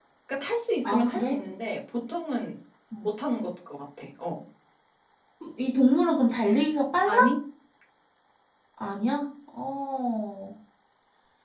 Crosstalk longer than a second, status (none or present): none